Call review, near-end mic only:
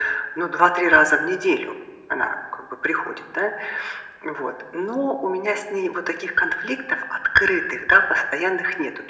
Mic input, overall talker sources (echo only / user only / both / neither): echo only